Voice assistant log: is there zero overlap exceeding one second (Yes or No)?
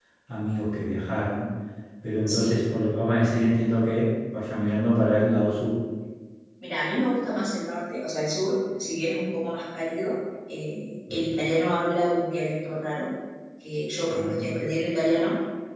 Yes